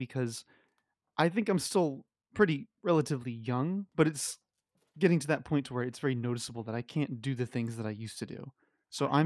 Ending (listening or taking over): listening